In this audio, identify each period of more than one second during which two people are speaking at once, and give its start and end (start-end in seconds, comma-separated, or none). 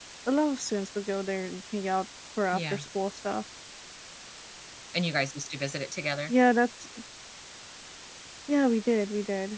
none